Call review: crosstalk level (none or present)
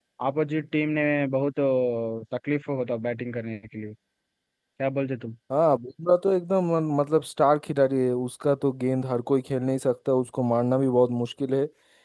none